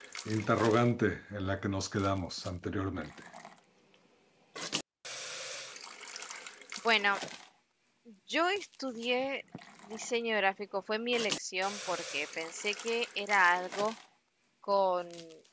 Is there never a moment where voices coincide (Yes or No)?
Yes